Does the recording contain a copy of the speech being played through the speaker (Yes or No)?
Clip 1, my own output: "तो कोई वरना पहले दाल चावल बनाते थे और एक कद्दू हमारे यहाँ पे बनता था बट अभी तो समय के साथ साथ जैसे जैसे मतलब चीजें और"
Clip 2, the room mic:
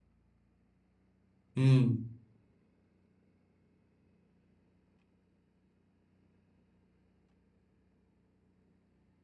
No